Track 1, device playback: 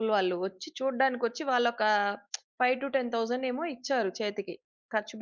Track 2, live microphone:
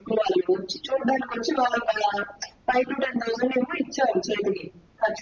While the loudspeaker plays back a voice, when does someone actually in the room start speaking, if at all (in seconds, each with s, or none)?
none